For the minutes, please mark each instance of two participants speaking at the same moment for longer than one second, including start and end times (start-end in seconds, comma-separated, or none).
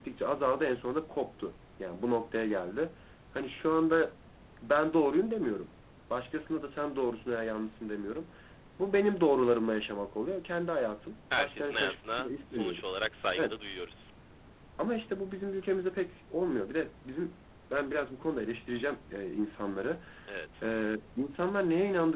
11.4-12.8